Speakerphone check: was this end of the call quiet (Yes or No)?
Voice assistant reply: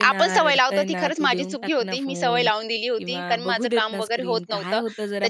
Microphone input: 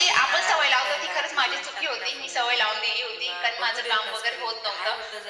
Yes